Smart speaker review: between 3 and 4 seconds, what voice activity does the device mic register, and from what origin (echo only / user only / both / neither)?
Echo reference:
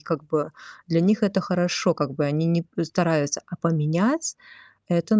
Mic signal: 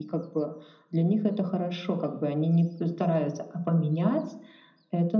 echo only